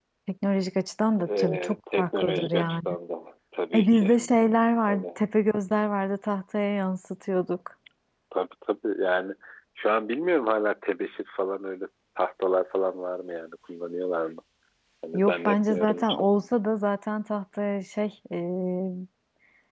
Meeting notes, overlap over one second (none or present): present